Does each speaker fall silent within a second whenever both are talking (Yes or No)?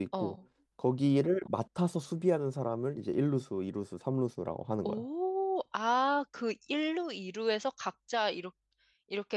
Yes